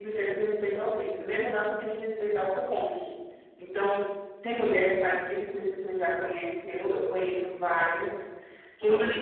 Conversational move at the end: listening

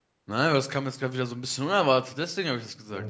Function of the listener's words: taking over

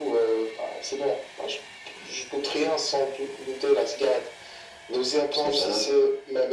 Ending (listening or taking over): listening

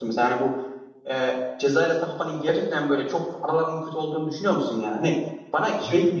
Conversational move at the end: listening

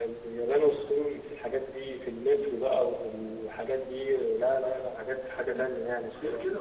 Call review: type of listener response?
taking over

